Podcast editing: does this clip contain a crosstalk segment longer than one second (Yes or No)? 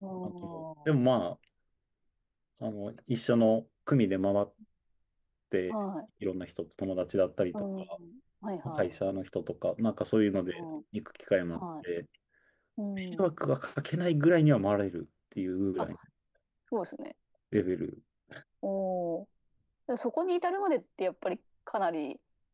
No